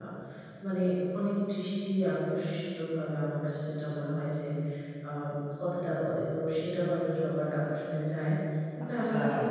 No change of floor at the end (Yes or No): Yes